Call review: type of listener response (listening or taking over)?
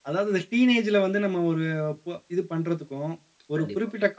listening